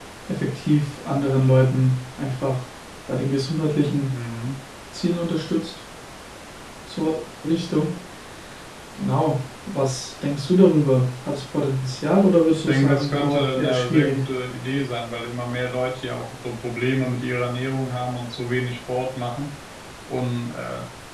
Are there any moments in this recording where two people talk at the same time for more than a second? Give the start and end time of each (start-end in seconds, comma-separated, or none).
12.6-14.2